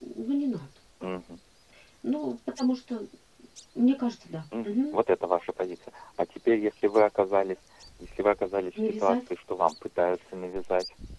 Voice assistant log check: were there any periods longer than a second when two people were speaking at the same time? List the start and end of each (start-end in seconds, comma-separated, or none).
none